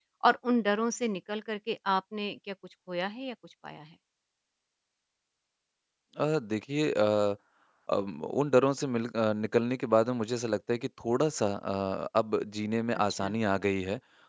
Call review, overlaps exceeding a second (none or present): none